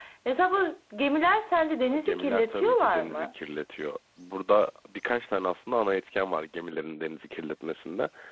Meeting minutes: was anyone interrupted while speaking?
Yes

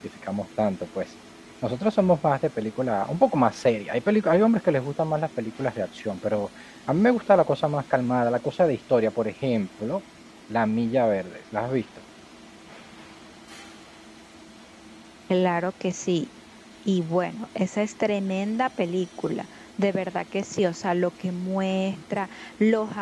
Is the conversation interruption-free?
Yes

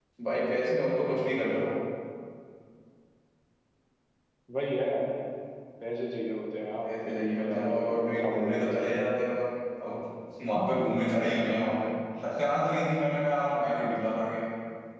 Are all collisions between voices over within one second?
No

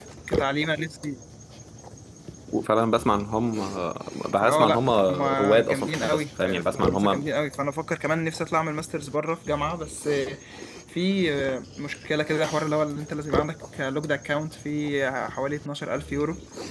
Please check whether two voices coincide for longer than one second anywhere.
Yes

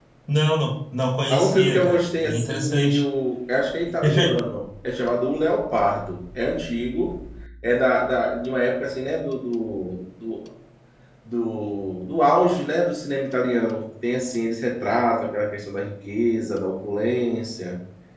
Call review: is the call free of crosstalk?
No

